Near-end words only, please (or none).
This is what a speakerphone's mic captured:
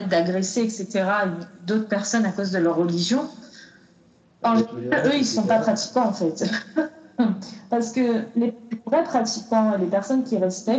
la tolérance et cetera.